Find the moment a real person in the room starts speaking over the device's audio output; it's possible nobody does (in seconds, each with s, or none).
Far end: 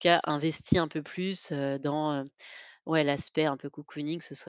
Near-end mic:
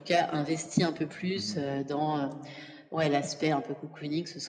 1.3 s